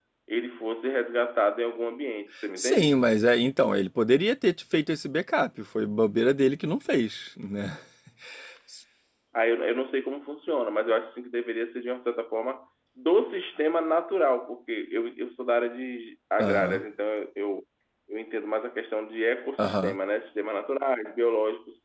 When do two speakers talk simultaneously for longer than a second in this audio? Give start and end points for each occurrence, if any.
none

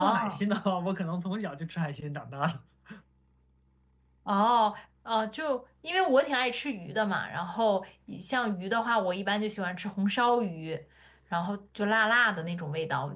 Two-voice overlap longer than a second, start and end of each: none

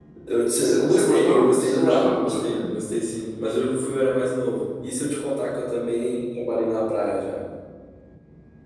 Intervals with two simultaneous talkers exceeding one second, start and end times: 0.8-2.6

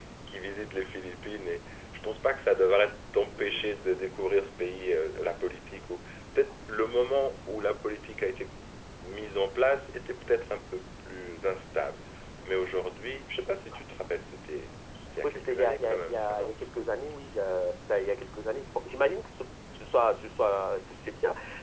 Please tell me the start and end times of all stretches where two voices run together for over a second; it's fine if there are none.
15.2-16.5

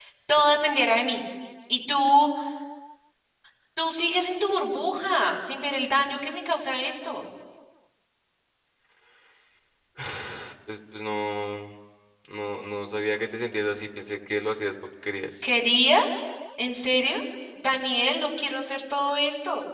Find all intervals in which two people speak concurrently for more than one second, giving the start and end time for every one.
none

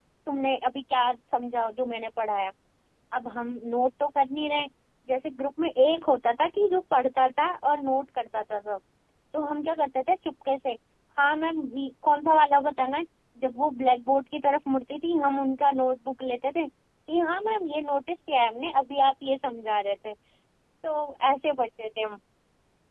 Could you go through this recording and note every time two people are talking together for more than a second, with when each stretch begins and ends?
none

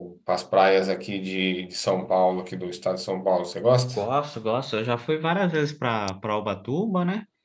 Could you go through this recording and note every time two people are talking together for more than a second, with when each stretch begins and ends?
none

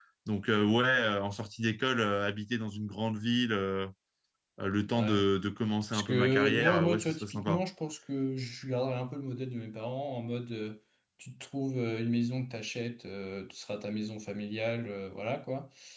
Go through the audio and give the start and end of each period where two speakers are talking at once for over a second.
5.9-7.6

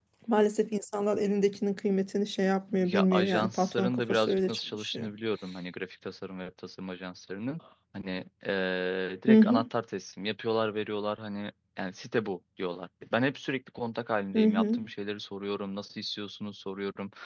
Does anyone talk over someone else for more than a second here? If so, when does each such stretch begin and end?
2.8-5.1

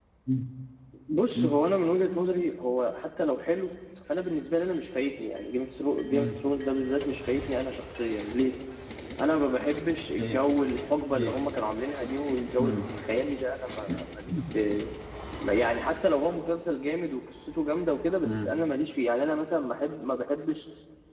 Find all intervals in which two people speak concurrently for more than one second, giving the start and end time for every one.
none

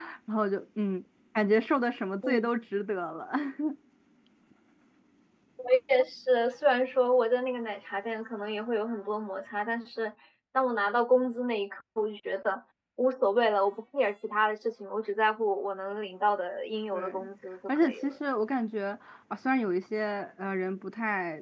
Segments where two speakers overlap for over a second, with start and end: none

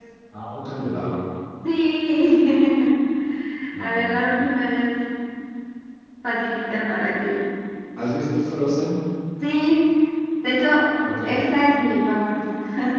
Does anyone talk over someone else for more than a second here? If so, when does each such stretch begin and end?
none

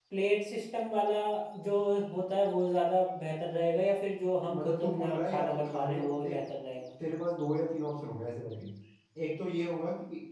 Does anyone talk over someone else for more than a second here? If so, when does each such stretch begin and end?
4.5-6.4

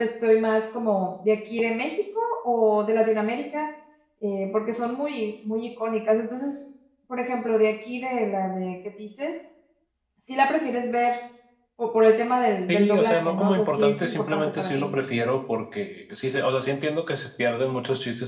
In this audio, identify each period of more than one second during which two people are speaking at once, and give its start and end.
12.7-14.9

